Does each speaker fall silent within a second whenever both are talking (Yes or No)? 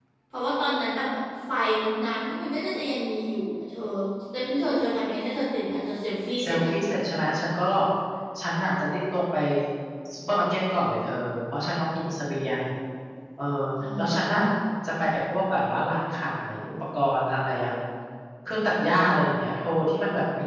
Yes